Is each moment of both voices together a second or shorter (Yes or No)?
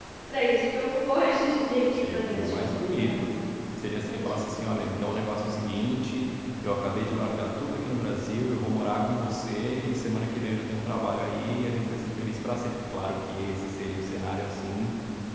No